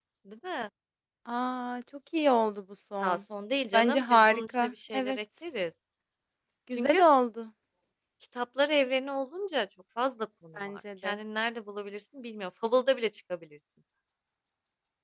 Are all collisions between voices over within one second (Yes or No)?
No